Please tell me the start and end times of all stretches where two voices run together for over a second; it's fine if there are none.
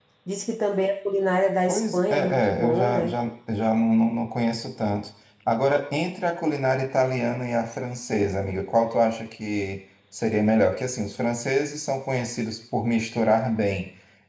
1.7-3.2

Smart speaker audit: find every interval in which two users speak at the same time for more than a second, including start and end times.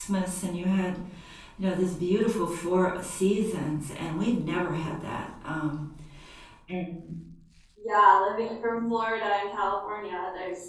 none

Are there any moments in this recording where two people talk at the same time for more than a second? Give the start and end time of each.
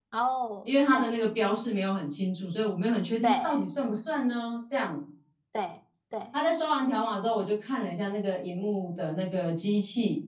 none

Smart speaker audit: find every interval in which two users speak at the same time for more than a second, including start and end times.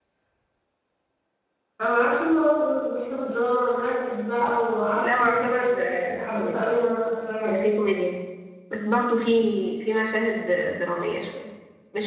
5.0-6.7

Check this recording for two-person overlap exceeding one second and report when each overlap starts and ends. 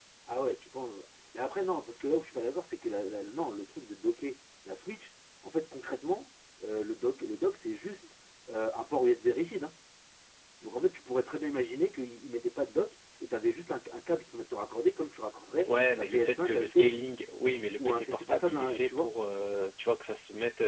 15.6-17.0, 17.8-19.1

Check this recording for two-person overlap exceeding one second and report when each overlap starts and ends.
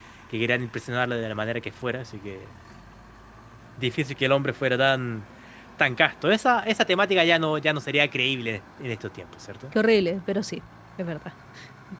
none

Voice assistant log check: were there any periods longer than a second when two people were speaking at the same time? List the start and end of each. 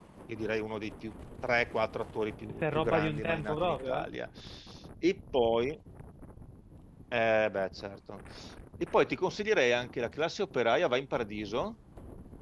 2.5-4.1

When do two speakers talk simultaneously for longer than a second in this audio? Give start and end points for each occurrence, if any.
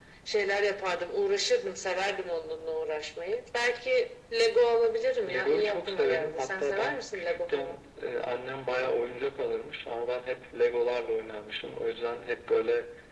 5.2-7.8

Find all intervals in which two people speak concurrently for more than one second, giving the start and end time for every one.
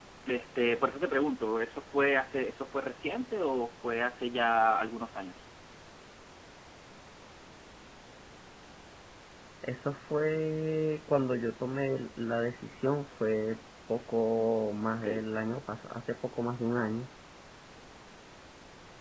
none

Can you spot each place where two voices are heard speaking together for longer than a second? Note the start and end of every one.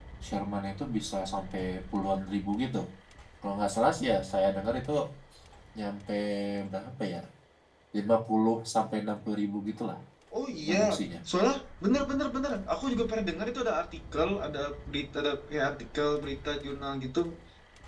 none

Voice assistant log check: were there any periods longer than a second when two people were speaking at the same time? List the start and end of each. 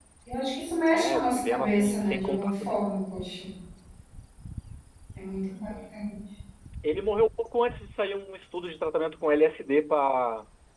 0.9-2.8

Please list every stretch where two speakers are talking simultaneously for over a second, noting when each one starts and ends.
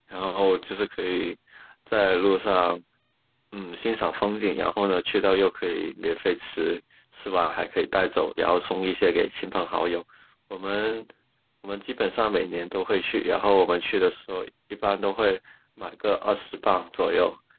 none

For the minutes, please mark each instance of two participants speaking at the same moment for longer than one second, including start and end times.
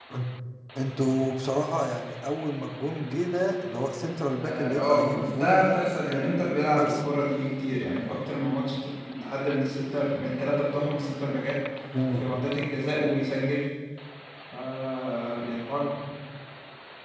4.4-5.8

